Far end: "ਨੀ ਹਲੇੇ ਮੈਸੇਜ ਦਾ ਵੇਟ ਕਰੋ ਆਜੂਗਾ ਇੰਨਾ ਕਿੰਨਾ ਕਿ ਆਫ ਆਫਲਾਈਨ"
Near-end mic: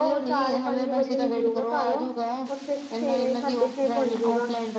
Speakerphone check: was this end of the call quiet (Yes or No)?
No